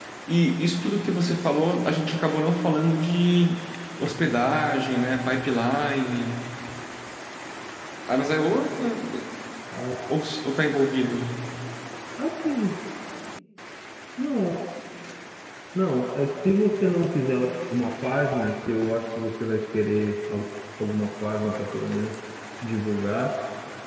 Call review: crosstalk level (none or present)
none